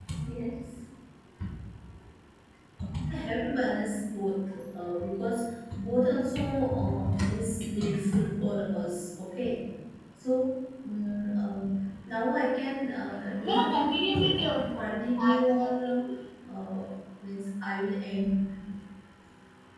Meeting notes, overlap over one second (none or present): present